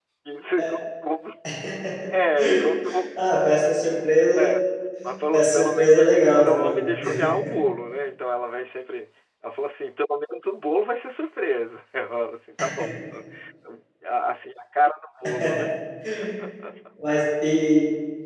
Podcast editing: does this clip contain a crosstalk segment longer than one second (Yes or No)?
Yes